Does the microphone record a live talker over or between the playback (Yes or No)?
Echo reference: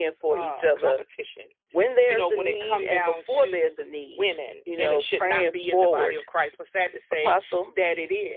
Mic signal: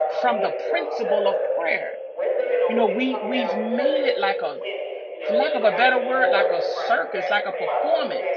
Yes